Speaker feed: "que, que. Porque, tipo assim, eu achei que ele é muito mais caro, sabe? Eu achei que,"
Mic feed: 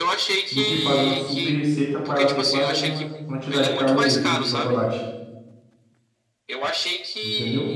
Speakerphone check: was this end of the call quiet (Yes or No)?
No